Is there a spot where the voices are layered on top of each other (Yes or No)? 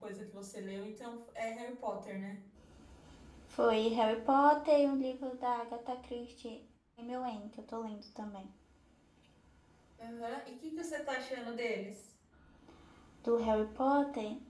No